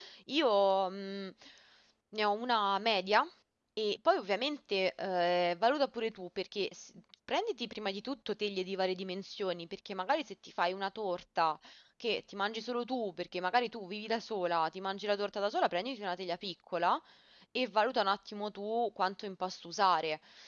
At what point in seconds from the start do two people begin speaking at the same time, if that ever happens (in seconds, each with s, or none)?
none